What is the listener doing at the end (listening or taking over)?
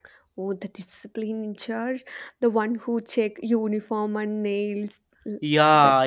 taking over